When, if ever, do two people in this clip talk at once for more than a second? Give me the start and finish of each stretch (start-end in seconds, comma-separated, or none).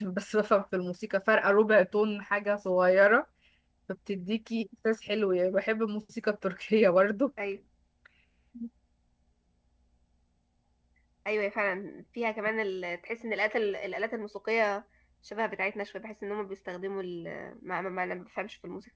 none